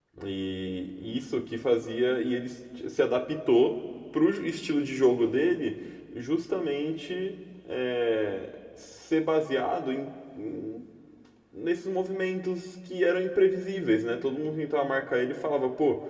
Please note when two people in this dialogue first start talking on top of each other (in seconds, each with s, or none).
none